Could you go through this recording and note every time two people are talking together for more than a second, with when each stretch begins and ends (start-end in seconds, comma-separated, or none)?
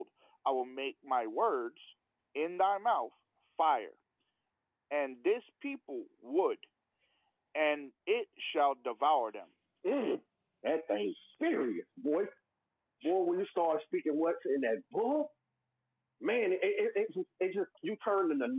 none